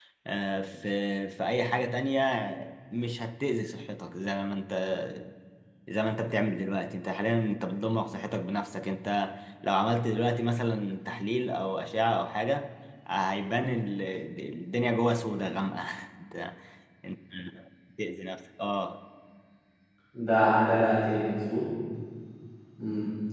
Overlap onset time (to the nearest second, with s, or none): none